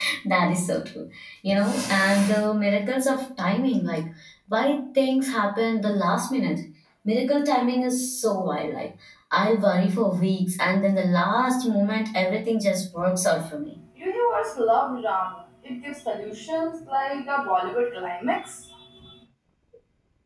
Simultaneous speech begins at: none

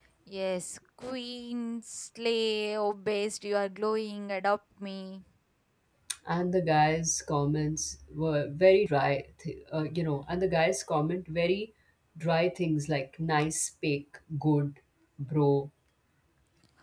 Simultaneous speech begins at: none

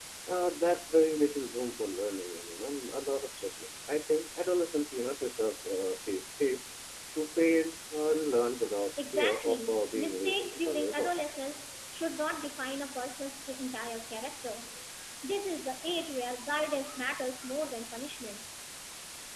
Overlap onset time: 9.0 s

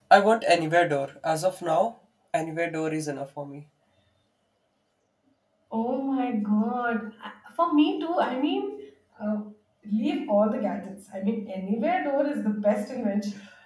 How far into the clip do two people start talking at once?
none

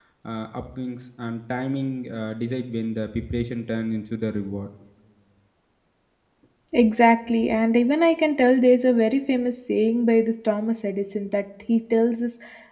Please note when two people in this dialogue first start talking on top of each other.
none

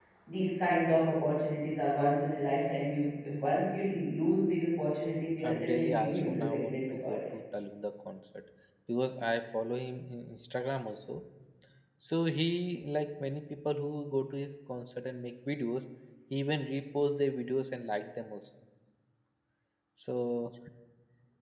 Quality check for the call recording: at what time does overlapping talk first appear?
5.4 s

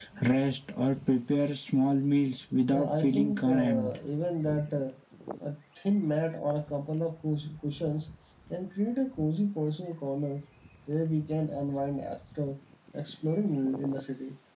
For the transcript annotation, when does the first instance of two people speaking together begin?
2.7 s

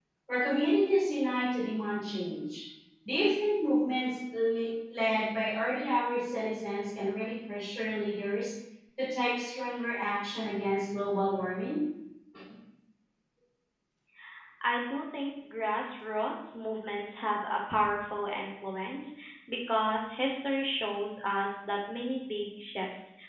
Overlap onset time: none

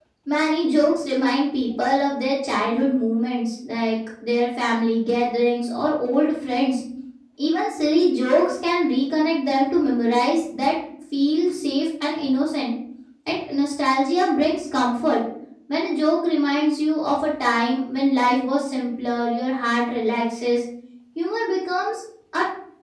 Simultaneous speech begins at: none

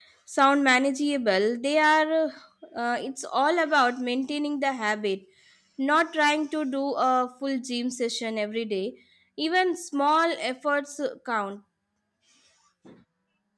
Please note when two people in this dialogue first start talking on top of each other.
none

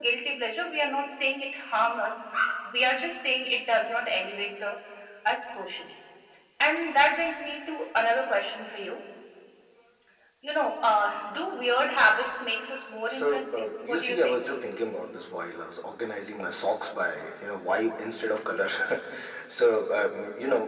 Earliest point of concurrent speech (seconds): 13.1 s

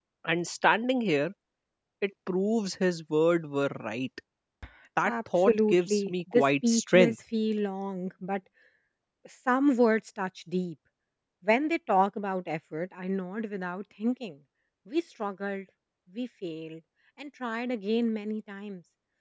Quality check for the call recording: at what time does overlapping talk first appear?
5.0 s

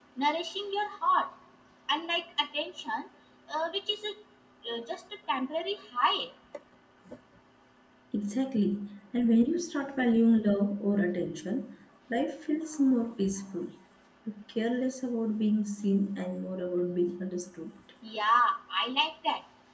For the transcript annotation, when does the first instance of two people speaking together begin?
none

